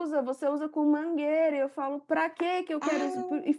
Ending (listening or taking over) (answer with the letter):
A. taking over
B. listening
B